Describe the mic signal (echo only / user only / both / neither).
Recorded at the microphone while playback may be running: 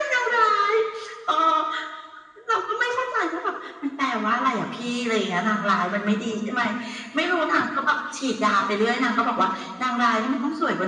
echo only